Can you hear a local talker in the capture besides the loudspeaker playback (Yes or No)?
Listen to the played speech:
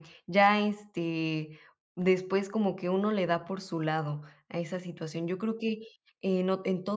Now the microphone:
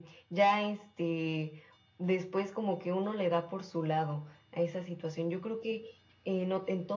No